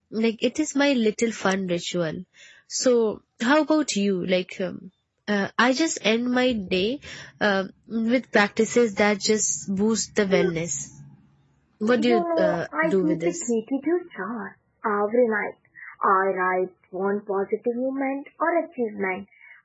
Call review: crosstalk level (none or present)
present